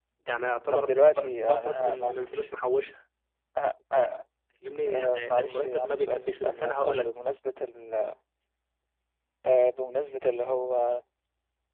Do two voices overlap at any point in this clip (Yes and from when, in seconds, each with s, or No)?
Yes, from 0.7 s